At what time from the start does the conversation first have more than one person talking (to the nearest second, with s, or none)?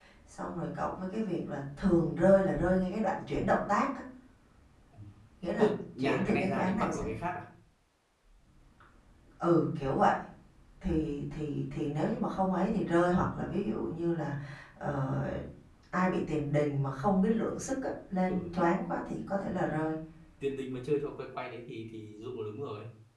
6 s